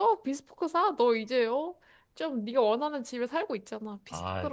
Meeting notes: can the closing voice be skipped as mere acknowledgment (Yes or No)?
No